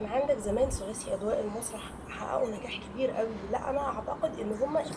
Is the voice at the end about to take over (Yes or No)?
Yes